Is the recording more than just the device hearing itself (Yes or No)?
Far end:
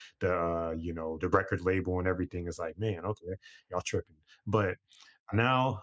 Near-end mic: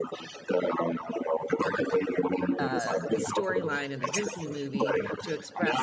Yes